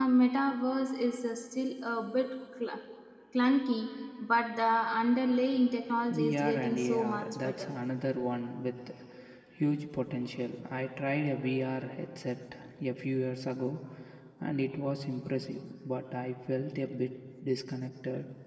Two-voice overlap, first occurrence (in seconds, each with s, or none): 6.2 s